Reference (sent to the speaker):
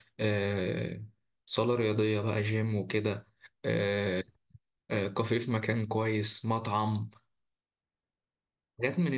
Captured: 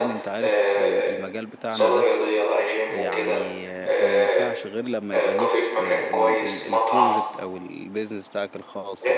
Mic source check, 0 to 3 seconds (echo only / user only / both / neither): both